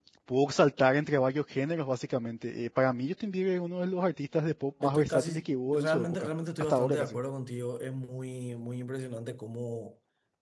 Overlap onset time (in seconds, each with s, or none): 4.8 s